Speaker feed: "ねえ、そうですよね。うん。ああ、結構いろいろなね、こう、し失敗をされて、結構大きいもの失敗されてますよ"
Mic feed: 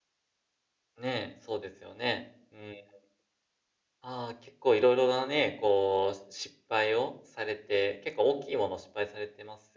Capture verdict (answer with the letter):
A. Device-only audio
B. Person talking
A